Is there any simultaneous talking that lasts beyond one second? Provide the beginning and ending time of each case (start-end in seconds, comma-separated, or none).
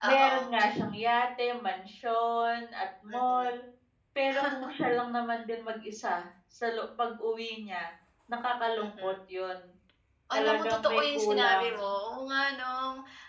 10.3-11.7